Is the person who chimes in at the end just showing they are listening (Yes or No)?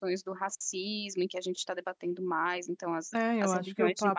No